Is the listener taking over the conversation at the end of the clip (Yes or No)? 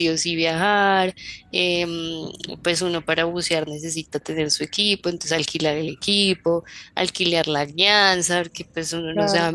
No